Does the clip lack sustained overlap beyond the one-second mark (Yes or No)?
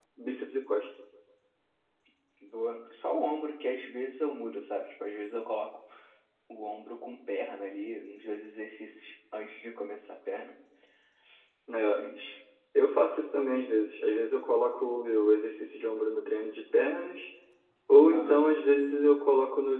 Yes